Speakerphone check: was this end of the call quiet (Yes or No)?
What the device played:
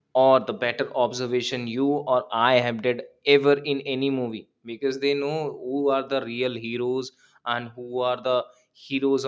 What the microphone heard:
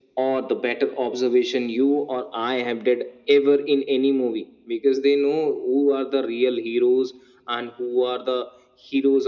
Yes